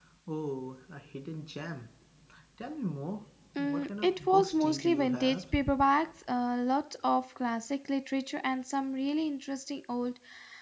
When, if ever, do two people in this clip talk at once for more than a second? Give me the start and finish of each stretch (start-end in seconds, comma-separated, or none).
3.6-5.4